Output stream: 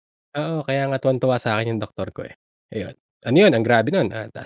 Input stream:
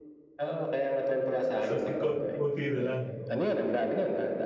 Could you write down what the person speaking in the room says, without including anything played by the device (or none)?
So as in konting-konti na lang? Oo.